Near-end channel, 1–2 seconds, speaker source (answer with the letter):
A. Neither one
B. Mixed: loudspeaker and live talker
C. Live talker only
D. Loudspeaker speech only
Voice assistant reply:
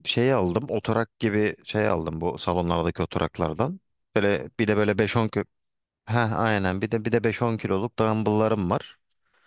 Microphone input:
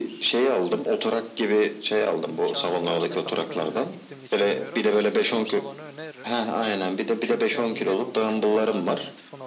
D